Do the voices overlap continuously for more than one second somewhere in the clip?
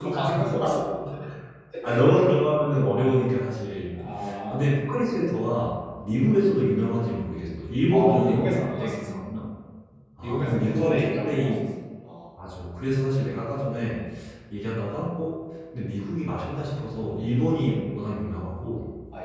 Yes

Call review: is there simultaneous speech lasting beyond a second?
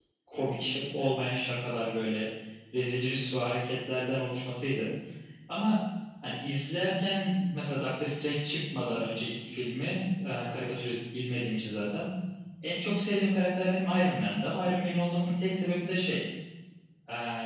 No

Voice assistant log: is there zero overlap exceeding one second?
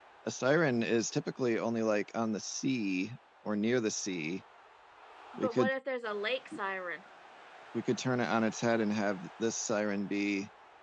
Yes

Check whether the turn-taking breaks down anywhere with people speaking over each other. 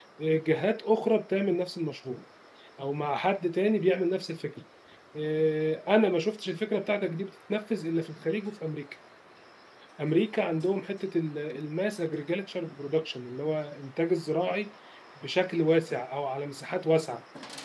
No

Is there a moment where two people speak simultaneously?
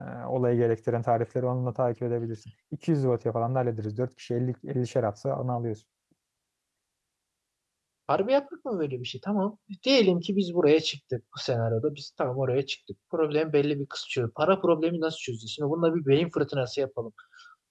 No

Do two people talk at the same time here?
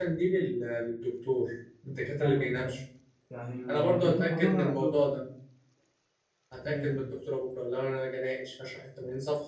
Yes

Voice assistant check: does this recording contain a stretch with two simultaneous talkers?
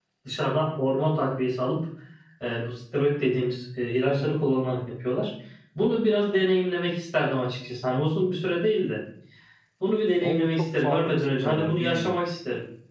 Yes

